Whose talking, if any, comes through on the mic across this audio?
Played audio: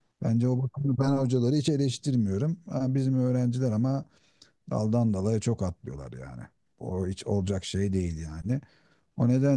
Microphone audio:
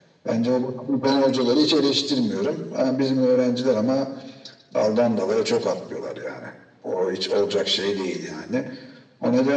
echo only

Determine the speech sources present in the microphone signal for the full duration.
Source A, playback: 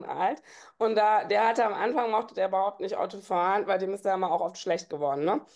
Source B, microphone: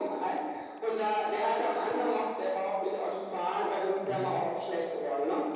both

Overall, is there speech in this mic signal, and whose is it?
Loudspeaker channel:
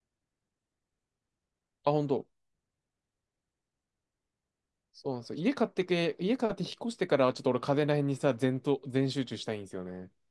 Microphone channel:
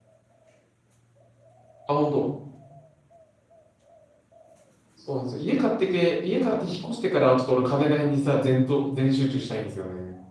echo only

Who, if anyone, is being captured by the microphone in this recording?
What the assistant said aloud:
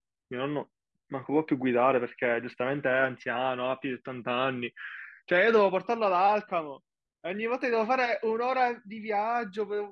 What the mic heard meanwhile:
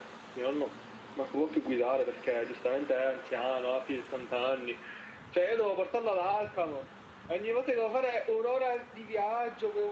echo only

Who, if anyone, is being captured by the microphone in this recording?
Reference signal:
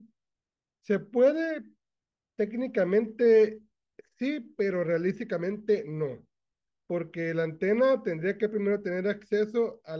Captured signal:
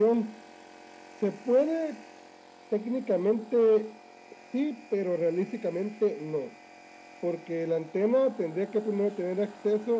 echo only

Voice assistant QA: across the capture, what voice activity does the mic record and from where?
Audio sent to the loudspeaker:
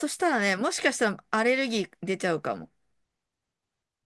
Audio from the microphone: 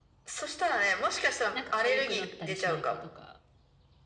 both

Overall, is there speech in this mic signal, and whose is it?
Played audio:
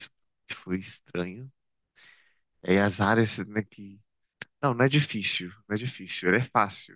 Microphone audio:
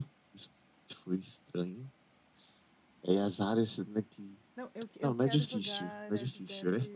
both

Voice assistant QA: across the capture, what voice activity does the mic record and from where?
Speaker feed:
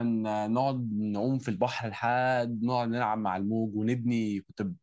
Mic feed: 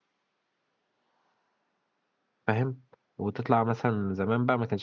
user only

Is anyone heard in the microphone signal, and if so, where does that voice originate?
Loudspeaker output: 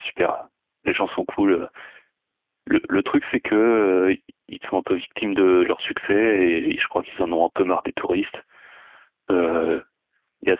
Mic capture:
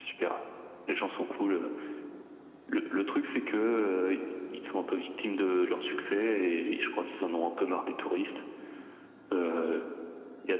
echo only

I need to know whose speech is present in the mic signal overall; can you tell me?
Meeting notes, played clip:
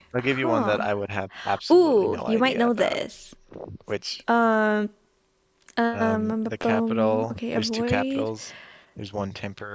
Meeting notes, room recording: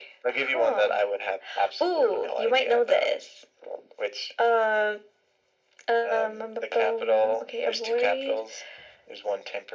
echo only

